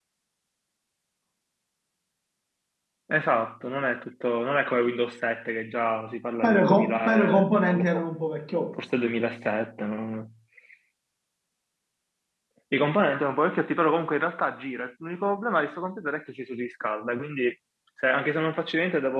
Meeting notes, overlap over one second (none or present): present